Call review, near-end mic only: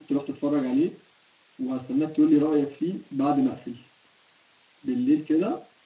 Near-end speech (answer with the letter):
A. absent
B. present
B